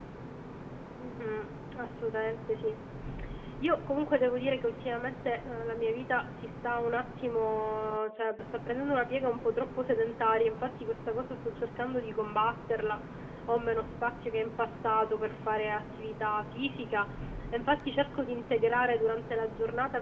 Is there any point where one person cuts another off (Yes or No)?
No